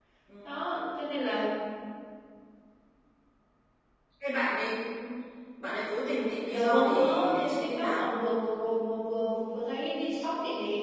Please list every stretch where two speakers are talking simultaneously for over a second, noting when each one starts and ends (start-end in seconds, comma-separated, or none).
6.5-8.0